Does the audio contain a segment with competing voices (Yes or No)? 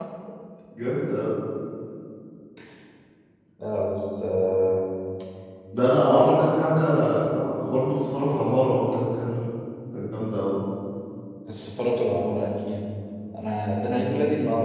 No